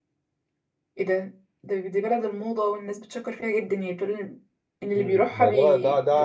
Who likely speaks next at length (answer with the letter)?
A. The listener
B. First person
A